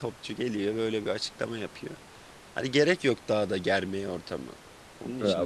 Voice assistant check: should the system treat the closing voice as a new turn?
Yes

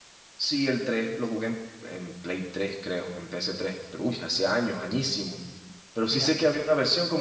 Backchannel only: Yes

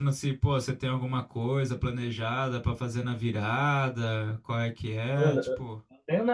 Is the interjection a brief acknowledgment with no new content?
No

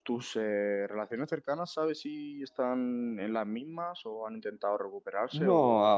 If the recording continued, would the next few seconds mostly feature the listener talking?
Yes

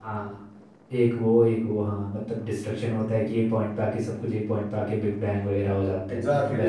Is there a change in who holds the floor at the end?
Yes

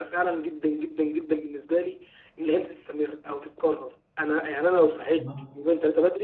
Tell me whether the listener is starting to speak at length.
No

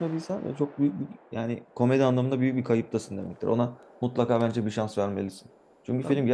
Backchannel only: Yes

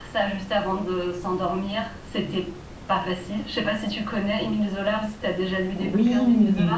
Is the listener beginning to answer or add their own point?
Yes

